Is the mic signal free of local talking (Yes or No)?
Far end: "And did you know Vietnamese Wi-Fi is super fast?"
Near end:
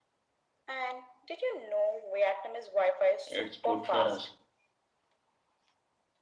No